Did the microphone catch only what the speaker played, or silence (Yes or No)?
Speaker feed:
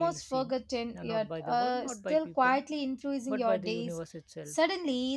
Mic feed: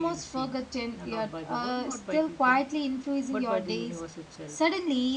Yes